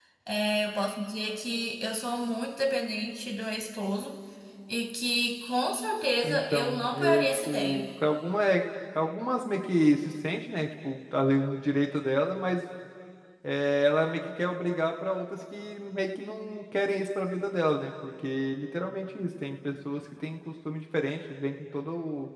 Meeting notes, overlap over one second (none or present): present